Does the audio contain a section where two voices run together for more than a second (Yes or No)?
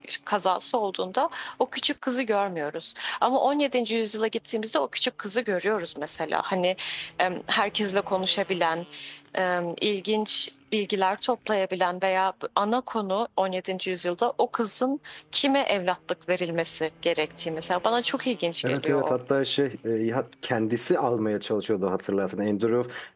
No